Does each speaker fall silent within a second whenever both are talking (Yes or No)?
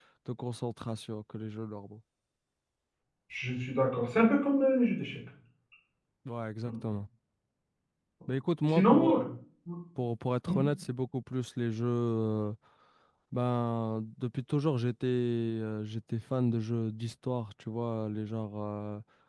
Yes